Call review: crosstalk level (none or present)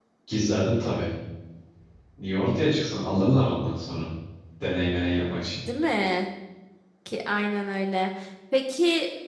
none